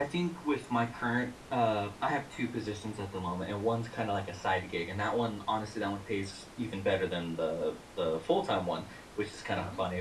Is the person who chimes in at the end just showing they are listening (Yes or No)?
Yes